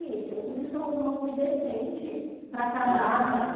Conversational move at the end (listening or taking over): taking over